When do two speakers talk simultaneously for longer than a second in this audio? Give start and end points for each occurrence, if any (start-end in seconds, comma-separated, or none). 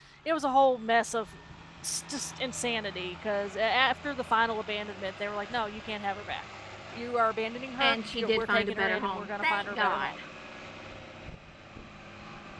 7.8-10.1